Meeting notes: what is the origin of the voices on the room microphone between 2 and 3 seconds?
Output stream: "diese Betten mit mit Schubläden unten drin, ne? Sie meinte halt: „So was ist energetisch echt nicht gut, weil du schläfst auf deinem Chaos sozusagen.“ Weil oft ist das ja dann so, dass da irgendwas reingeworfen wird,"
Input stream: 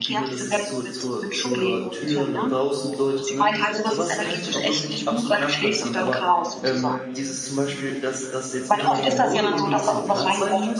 both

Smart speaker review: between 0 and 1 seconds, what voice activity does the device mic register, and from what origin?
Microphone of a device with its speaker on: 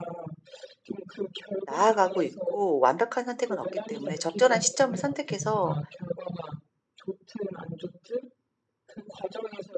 echo only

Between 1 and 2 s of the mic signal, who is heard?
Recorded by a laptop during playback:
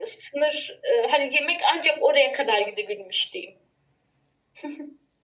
echo only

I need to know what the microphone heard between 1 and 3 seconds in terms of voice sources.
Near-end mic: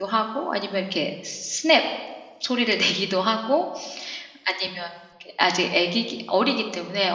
user only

